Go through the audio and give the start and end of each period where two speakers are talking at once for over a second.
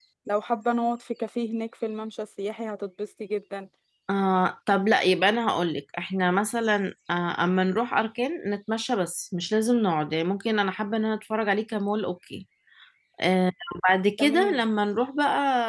none

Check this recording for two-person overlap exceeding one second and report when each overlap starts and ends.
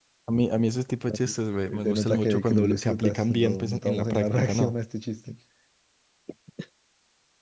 1.8-4.7

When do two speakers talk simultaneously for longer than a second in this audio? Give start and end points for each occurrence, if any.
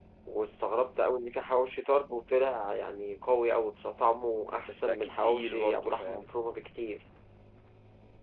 4.7-6.3

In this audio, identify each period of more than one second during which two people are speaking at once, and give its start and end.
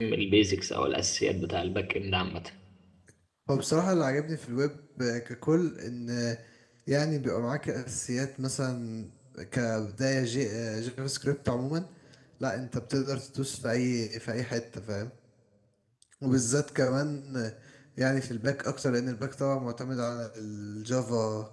none

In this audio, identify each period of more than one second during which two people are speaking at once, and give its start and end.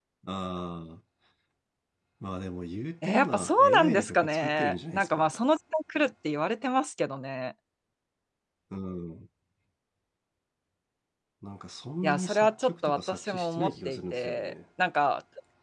3.0-5.3, 12.0-14.5

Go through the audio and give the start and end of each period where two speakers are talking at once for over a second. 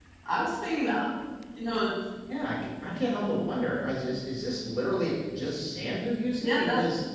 none

